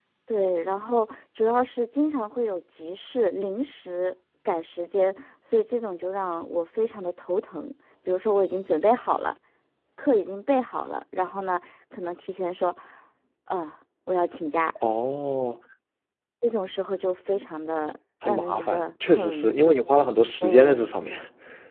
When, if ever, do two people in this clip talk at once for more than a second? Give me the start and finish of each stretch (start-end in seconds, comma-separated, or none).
18.2-19.5